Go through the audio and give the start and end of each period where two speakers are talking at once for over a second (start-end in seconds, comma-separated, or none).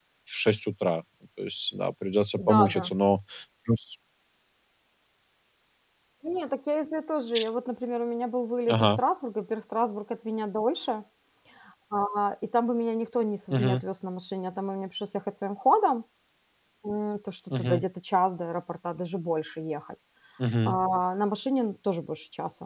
none